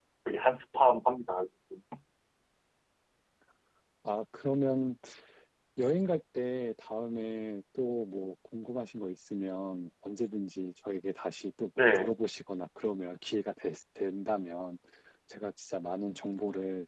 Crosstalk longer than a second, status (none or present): none